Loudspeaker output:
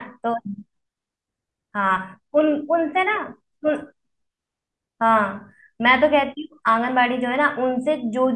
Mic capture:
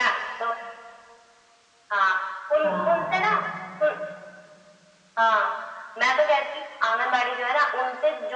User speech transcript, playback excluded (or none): हाँ